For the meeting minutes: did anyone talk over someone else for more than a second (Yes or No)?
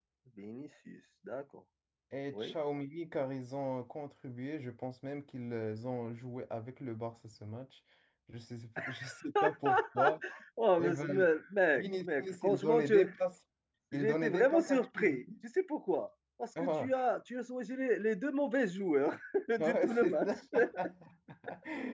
Yes